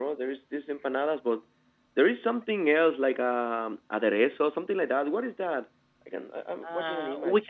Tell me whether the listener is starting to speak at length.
Yes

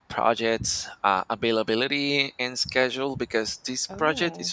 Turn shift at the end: No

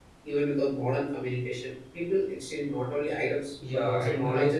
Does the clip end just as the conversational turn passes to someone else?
Yes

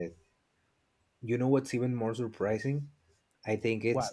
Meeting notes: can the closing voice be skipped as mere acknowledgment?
Yes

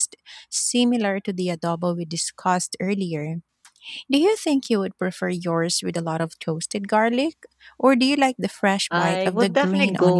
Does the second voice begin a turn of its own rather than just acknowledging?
Yes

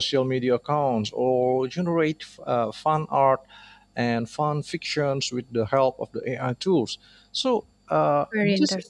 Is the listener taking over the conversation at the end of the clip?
No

